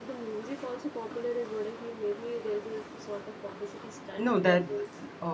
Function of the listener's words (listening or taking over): taking over